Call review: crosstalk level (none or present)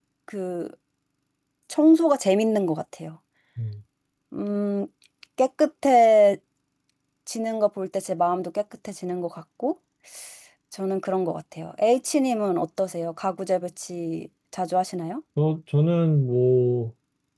none